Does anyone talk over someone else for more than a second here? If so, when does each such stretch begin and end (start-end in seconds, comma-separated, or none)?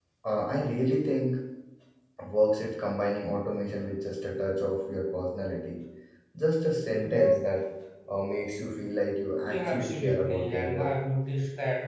9.4-10.9